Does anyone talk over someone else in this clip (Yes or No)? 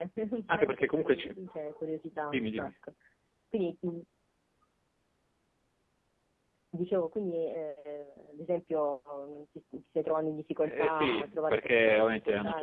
Yes